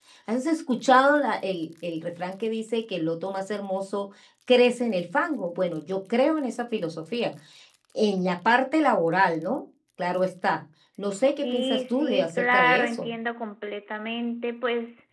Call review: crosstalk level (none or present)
present